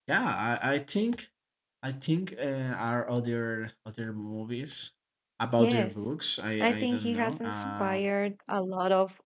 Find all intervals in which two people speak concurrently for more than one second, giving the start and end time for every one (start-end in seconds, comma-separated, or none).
6.6-8.1